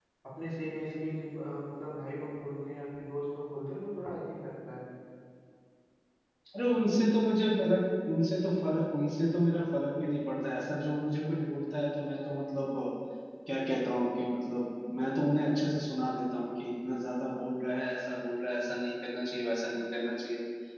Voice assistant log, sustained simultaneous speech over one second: none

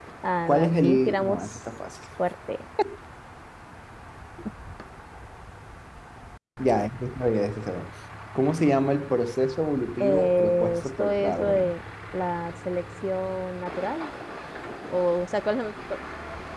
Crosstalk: present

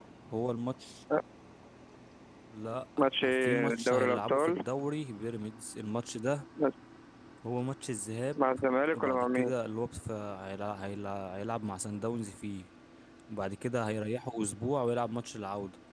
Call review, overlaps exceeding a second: present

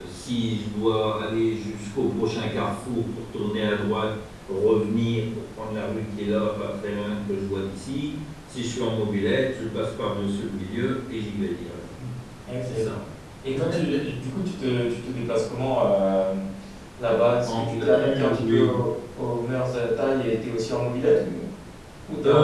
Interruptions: present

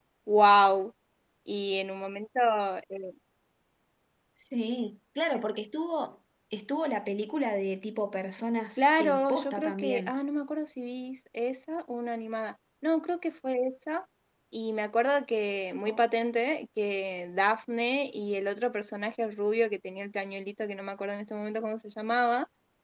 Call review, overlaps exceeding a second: present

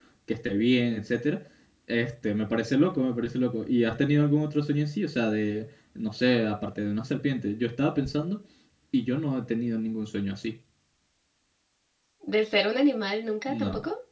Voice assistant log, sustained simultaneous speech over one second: none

